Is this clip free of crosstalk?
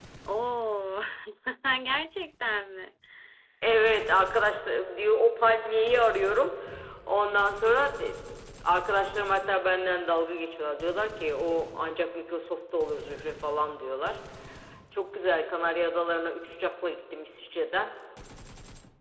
Yes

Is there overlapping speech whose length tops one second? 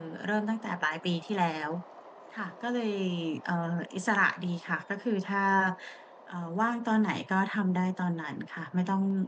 No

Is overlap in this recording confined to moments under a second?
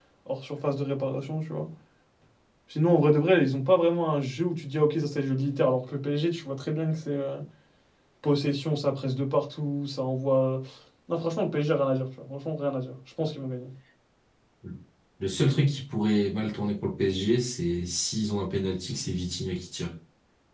Yes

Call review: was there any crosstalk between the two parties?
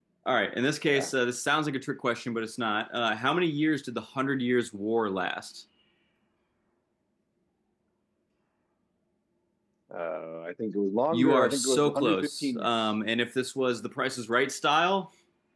Yes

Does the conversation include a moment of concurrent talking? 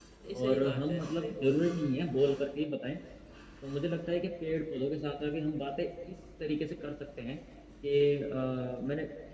Yes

